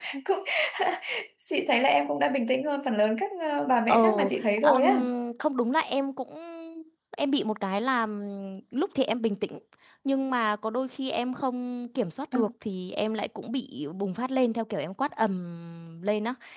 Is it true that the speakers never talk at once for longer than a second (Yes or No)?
Yes